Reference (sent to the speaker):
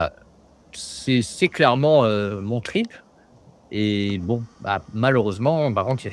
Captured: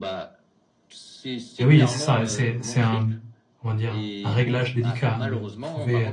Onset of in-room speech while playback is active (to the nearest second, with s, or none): 2 s